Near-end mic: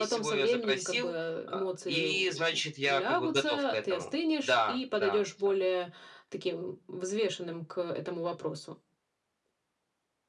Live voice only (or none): none